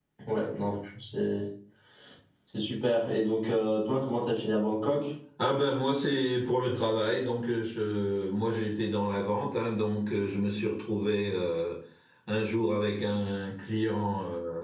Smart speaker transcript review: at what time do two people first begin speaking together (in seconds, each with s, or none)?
none